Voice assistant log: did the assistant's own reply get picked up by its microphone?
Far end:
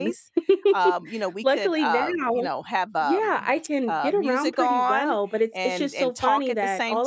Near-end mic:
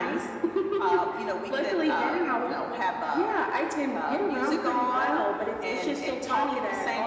Yes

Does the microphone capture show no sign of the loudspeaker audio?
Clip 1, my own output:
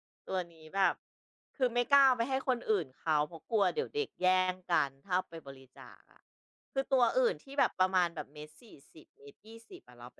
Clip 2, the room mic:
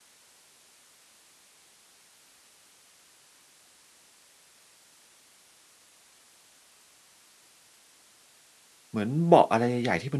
Yes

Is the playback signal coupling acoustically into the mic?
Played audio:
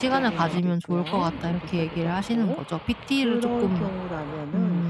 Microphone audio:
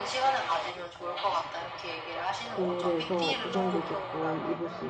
Yes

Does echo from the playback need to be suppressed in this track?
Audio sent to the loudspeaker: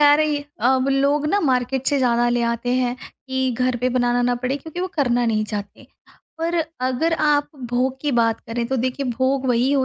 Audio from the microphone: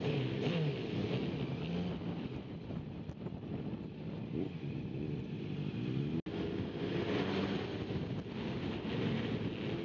No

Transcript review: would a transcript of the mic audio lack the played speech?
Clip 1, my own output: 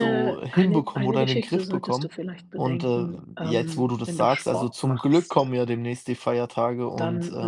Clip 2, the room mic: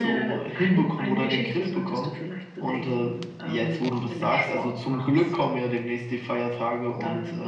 No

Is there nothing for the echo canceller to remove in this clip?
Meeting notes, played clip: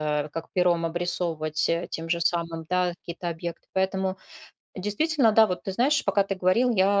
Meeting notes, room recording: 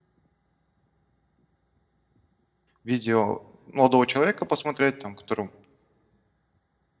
Yes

